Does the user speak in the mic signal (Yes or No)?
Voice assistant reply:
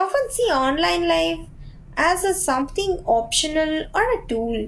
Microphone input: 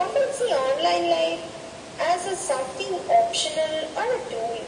No